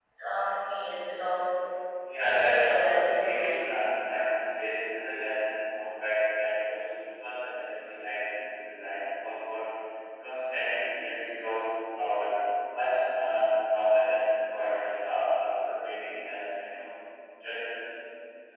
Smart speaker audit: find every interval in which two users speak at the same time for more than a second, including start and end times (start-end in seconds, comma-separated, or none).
2.2-3.6